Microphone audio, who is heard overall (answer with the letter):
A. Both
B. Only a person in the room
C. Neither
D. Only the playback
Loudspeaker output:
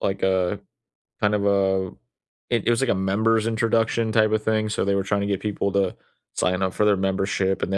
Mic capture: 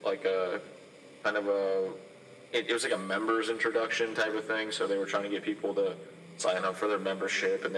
D